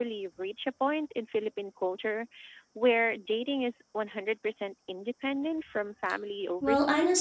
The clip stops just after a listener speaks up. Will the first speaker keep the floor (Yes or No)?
No